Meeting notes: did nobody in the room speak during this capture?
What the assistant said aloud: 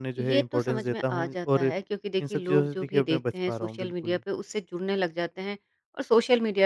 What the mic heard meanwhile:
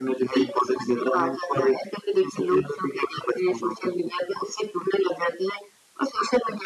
Yes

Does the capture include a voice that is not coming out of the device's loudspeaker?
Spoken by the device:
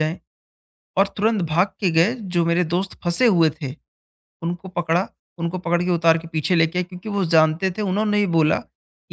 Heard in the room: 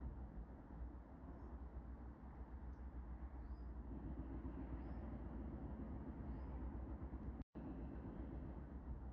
No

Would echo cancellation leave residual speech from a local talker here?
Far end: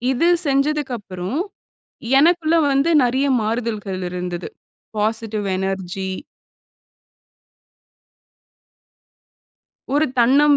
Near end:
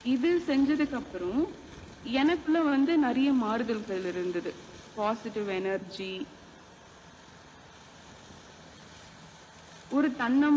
No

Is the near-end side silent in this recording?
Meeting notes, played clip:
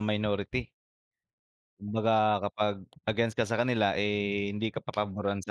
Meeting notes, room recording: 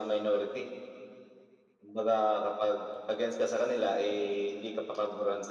Yes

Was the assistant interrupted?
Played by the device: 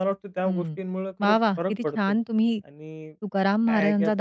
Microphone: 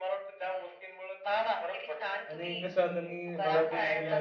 Yes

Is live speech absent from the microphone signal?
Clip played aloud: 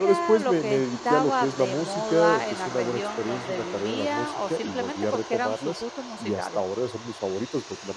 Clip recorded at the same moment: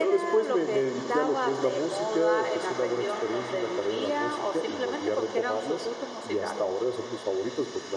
Yes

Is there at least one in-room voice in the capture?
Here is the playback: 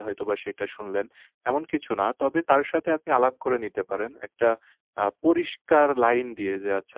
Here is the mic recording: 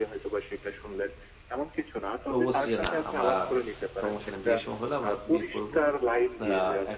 Yes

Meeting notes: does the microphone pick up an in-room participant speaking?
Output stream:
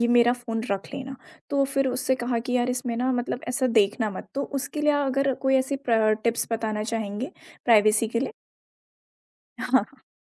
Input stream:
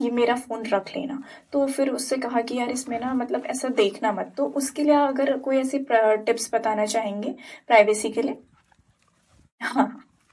No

